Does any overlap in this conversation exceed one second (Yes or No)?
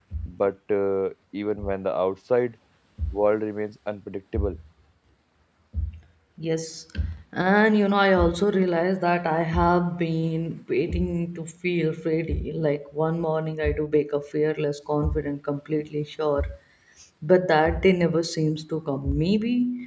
No